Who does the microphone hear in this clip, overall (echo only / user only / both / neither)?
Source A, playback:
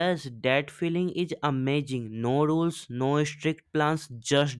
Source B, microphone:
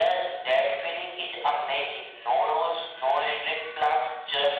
echo only